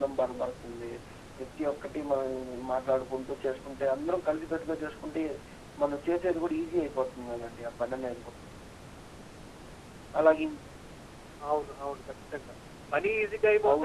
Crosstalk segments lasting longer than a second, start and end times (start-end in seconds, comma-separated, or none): none